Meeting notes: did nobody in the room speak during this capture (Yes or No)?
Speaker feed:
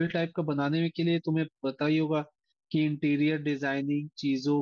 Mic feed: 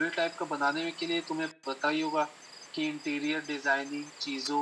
Yes